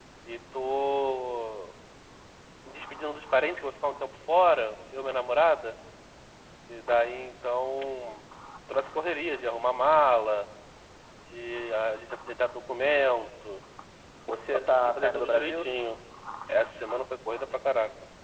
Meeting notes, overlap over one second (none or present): present